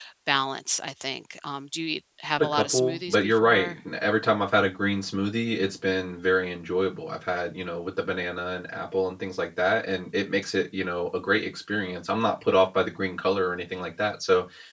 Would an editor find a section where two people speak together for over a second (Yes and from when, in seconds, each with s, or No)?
Yes, from 2.4 s